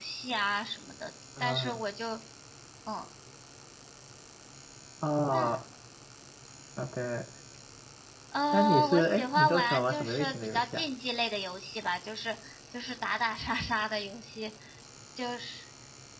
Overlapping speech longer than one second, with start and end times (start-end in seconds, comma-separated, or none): 8.5-10.8